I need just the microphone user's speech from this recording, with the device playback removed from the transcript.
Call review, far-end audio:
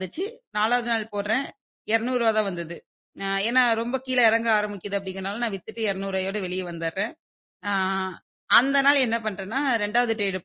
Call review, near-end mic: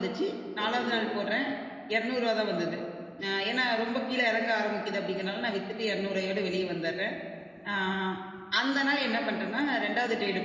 அச்சச்சோ!

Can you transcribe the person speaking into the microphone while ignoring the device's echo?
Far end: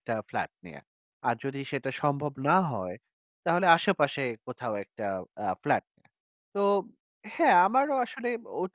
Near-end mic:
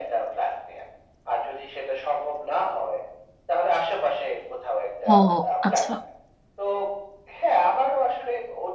ও আচ্ছা।

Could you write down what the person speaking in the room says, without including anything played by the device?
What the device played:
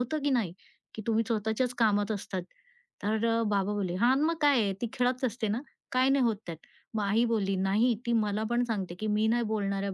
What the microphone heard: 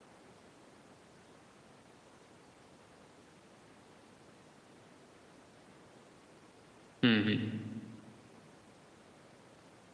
हं, हं.

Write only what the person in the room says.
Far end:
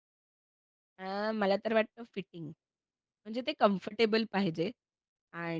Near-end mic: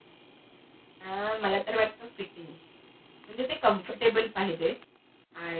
none

